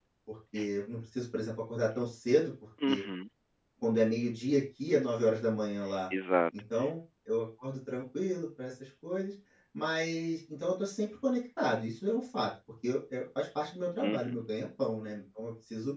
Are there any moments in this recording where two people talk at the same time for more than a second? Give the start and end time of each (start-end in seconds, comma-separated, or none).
none